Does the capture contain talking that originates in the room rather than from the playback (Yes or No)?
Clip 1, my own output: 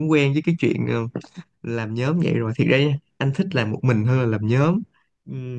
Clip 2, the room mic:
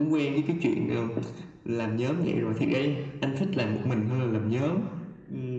No